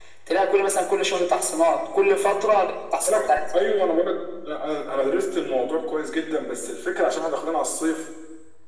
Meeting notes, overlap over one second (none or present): none